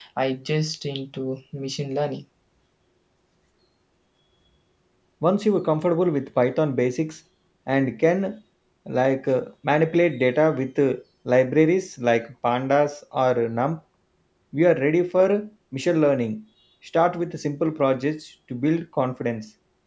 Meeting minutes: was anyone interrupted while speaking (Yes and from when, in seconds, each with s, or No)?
No